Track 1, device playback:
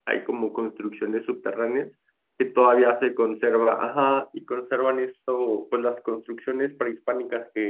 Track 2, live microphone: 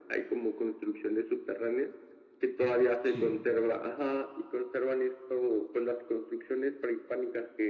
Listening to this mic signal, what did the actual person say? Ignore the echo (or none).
Sí.